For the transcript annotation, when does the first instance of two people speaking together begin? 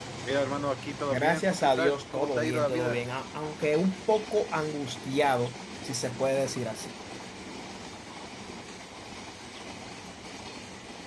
1.0 s

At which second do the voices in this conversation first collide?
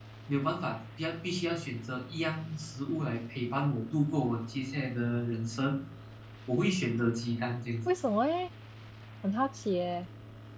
none

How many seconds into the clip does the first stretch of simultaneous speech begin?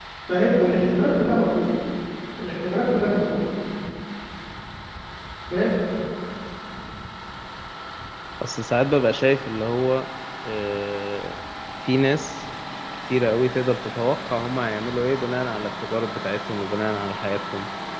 none

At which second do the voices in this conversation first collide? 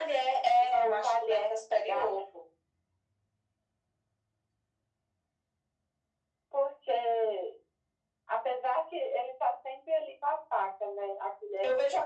0.6 s

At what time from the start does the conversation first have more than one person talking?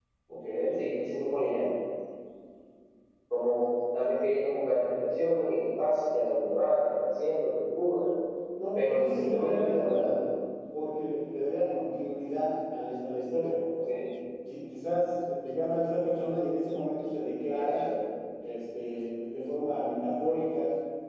8.8 s

